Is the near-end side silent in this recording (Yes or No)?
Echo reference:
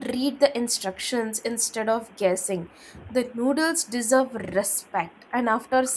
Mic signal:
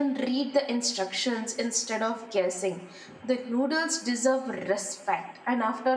Yes